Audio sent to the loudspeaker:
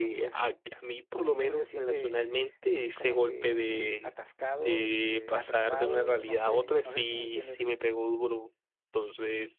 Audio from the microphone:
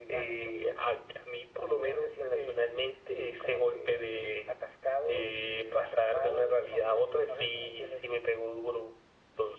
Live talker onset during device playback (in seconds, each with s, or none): none